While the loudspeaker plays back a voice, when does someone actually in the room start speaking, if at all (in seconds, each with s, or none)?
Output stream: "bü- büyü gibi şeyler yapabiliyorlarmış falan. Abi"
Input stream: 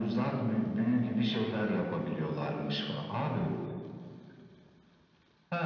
none